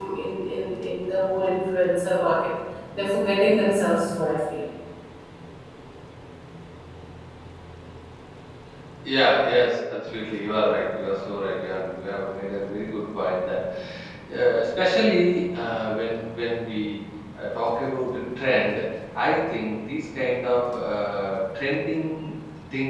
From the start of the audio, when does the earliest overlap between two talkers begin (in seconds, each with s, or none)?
none